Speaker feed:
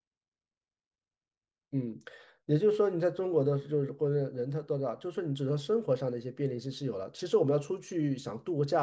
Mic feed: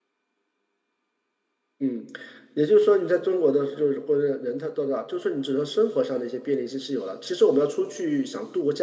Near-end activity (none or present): none